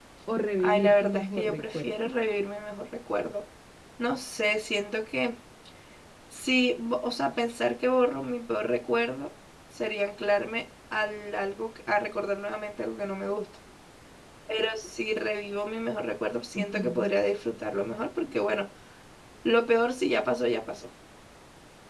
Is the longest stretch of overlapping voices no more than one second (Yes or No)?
No